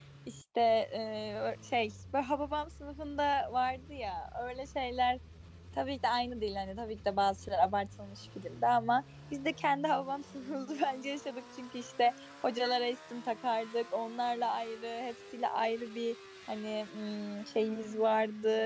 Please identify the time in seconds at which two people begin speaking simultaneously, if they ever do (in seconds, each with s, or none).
none